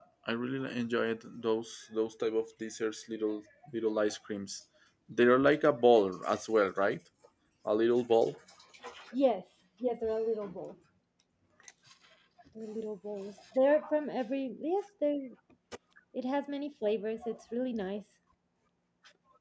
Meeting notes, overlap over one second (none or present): none